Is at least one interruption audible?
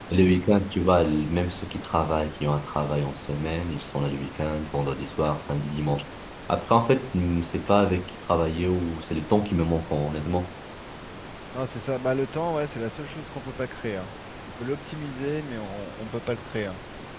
No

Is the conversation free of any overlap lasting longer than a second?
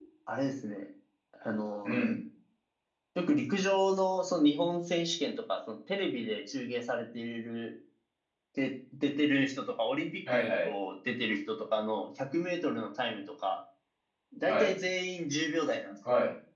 Yes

